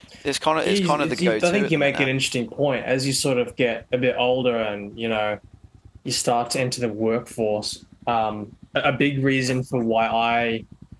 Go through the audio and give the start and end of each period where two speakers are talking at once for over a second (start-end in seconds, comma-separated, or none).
0.6-2.1